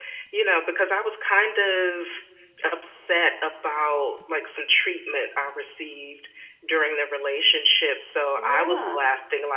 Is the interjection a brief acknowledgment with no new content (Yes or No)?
Yes